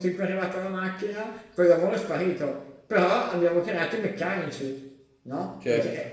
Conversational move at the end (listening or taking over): taking over